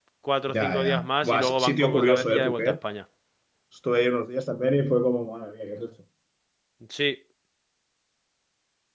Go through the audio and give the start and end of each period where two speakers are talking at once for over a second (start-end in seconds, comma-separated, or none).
1.2-2.8